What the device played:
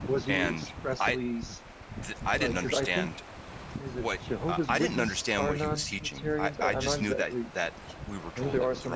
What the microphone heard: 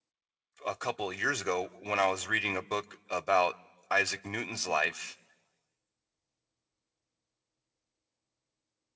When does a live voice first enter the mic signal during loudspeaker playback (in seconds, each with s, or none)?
0.7 s